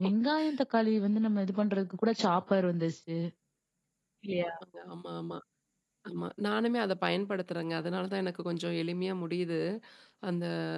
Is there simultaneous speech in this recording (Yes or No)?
No